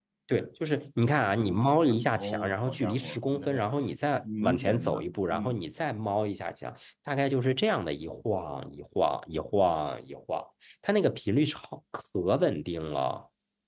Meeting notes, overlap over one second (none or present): present